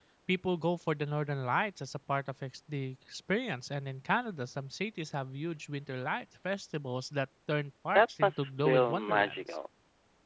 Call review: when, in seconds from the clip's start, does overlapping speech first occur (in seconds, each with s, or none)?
8.0 s